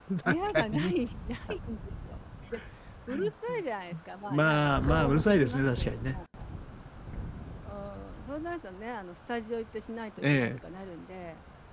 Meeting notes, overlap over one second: present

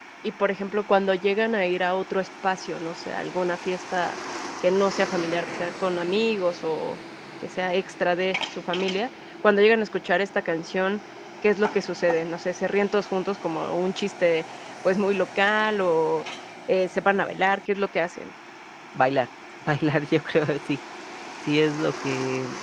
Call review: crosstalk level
none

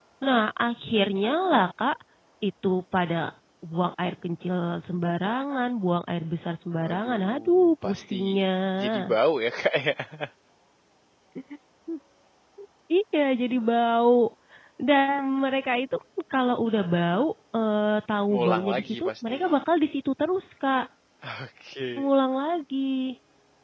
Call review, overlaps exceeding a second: present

